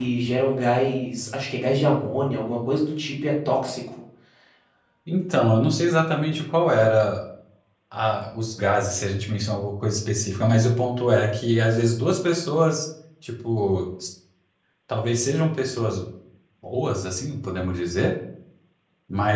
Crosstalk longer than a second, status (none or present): none